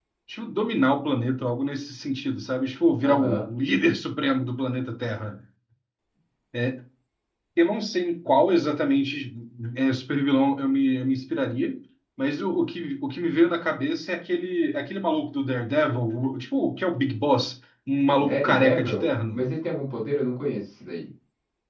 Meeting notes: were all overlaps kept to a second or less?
No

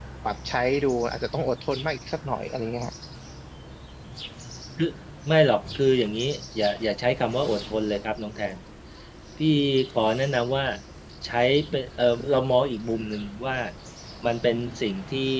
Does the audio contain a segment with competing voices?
No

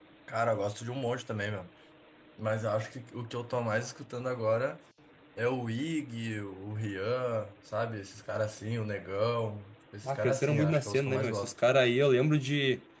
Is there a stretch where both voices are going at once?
Yes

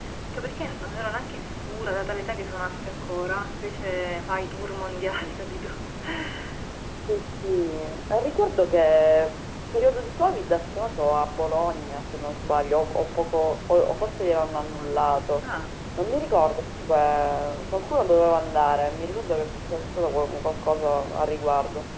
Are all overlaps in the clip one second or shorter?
Yes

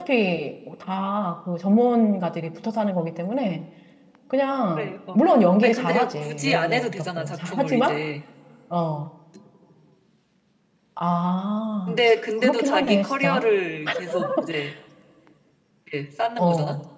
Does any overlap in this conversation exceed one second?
Yes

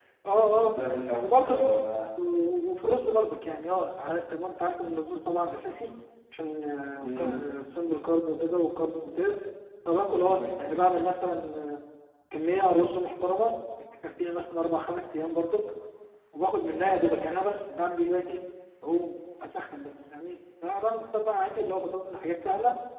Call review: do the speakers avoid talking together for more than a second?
Yes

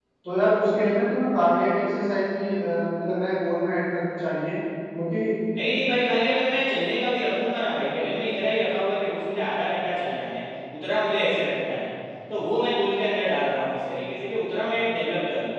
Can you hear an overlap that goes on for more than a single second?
No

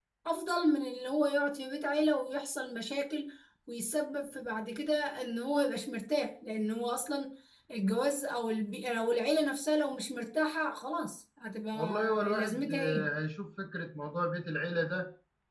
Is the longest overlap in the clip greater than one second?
Yes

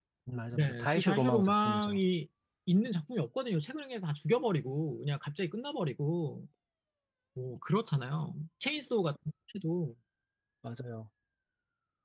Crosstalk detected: Yes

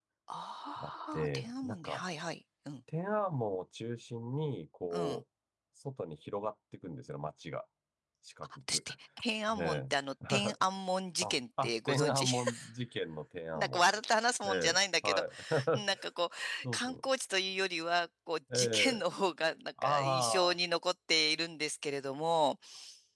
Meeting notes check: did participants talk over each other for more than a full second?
Yes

